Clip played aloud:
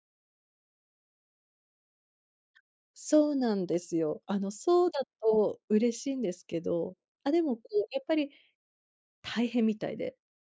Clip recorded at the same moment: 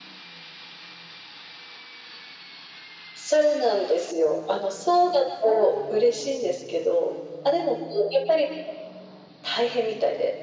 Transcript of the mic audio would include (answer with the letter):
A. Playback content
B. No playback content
A